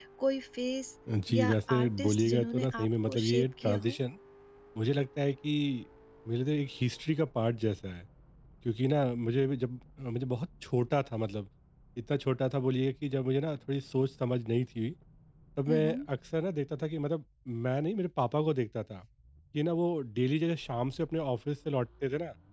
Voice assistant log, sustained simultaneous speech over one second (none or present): present